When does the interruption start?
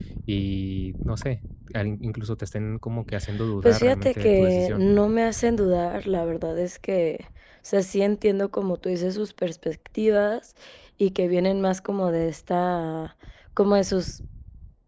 3.6 s

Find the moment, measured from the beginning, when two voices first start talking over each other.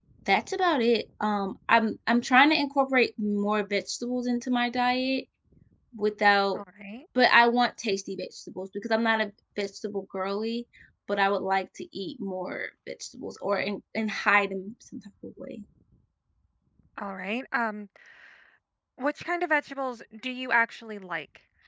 none

